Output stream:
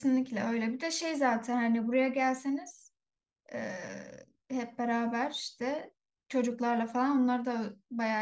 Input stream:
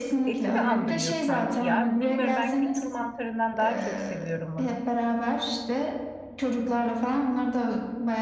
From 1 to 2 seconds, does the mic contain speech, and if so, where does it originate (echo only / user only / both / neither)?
both